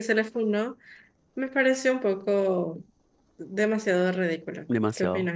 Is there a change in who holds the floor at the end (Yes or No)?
Yes